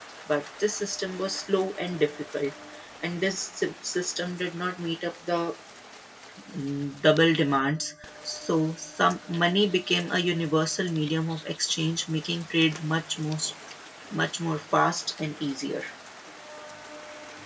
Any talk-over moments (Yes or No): No